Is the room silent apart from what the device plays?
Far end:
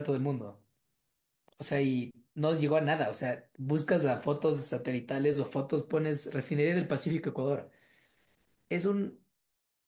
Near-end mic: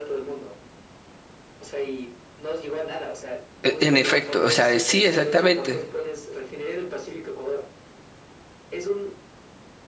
No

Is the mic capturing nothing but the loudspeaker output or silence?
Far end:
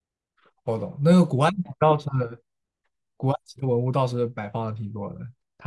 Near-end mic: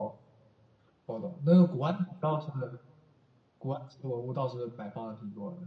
Yes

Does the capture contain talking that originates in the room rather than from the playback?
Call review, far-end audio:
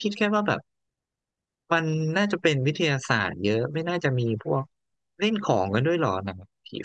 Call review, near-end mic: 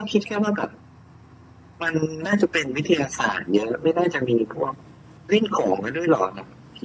No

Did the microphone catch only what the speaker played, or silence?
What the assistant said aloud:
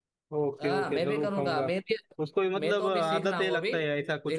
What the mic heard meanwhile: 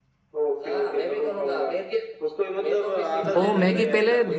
No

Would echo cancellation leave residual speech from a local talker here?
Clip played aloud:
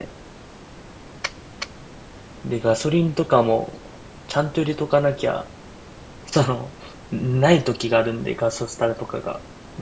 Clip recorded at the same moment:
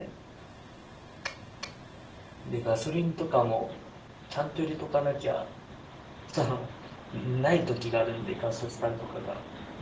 No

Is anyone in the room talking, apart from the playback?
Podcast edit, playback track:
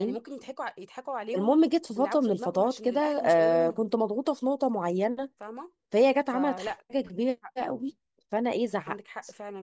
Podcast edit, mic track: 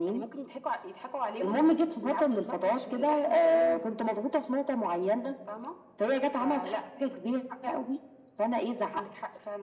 No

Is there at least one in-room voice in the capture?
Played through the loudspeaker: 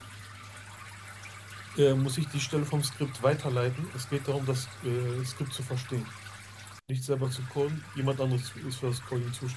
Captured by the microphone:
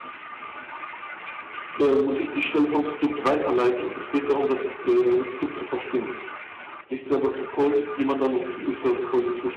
No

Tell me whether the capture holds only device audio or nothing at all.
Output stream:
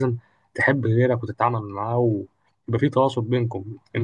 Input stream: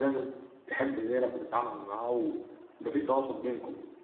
Yes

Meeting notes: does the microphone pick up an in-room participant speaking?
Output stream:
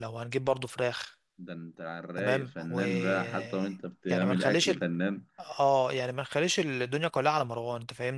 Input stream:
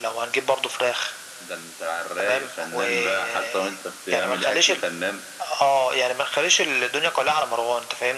No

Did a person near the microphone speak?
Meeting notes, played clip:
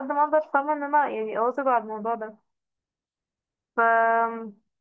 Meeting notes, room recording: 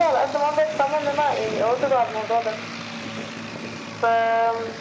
No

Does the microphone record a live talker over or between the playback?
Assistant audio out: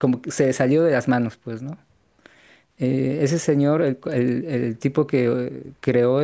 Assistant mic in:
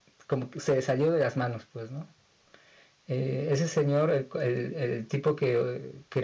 No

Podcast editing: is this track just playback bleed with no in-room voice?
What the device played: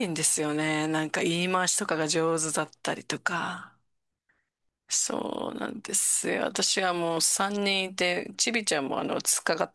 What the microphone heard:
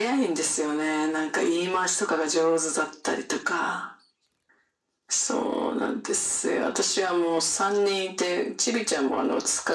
Yes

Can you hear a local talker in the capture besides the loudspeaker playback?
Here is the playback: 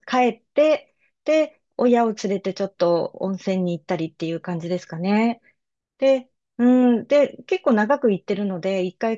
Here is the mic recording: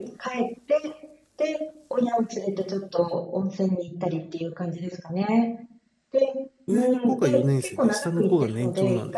Yes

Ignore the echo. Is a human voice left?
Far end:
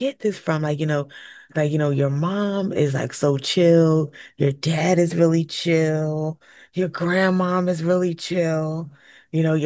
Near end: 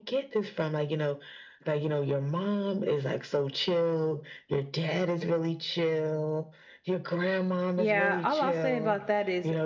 Yes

